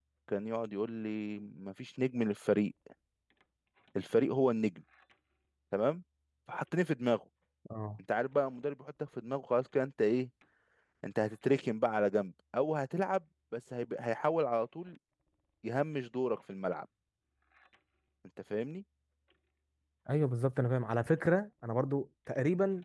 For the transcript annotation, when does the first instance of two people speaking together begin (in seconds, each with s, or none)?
none